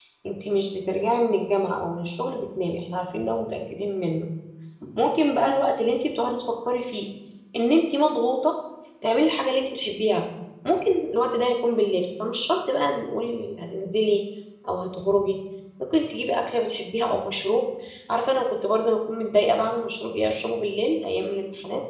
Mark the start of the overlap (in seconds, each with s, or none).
none